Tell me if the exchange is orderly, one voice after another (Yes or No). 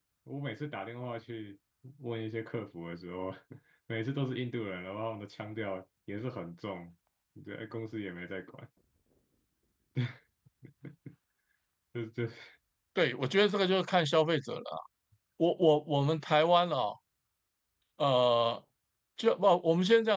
Yes